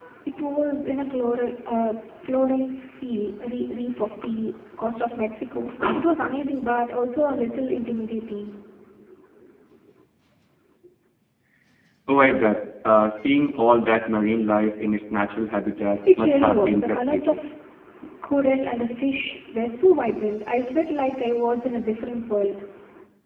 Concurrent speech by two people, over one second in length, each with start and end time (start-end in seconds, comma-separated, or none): 16.2-17.4